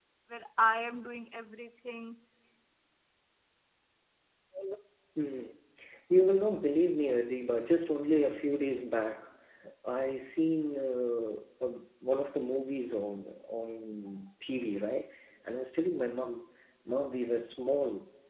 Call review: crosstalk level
none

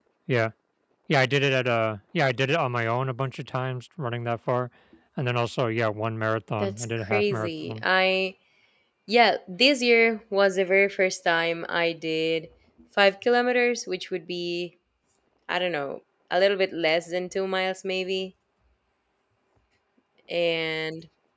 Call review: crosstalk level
present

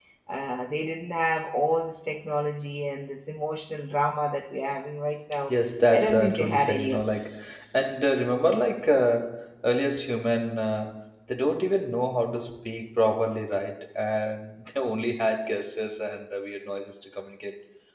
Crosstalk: present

